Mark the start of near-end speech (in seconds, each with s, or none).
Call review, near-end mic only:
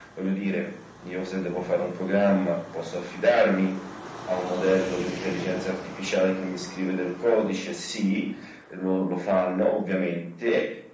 none